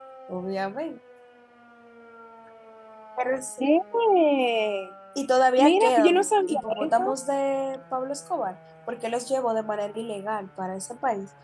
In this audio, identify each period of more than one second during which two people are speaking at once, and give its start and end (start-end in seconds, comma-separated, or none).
5.6-7.1